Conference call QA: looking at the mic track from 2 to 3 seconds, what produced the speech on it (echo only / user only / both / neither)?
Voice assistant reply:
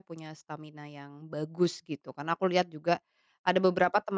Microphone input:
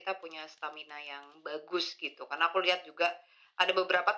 echo only